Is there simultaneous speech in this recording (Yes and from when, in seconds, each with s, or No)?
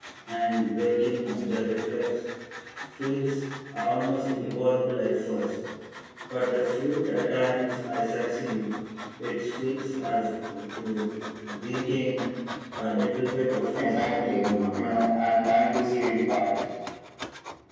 Yes, from 13.7 s